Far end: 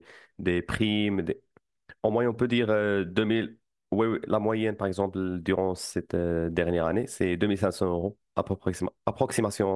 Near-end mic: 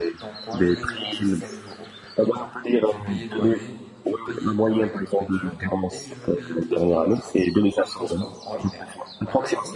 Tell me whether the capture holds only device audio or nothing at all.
No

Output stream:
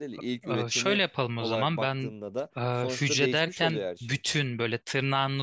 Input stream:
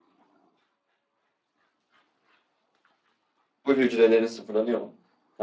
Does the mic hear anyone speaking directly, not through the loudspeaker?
Yes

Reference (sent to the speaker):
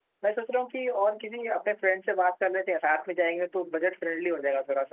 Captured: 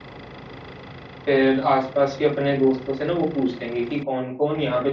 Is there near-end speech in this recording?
Yes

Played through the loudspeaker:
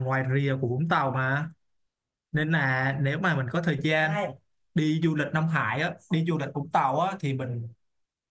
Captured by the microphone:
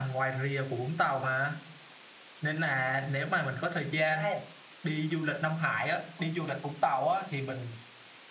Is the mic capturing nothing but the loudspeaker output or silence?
Yes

